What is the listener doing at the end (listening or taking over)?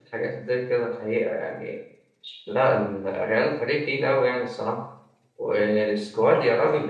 listening